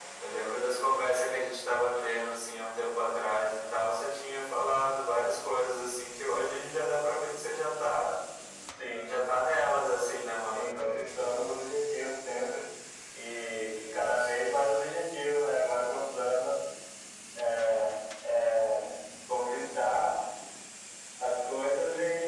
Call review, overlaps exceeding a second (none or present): none